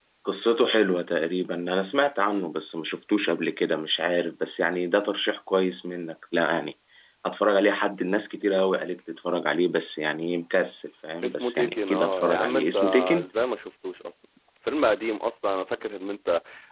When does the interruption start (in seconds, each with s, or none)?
11.2 s